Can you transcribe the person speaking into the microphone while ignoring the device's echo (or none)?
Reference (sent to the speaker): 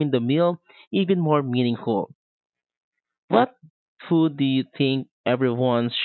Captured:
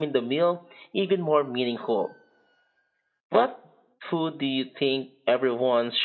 none